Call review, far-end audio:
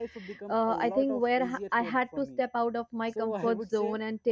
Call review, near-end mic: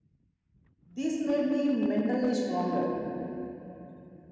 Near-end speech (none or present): present